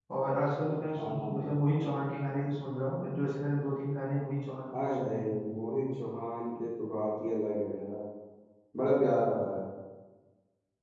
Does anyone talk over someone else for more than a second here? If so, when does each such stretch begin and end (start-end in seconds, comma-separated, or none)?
none